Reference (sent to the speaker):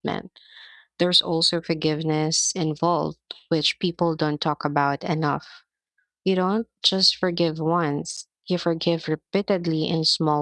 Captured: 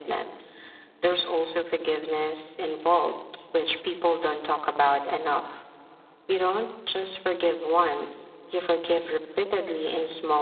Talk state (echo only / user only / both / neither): echo only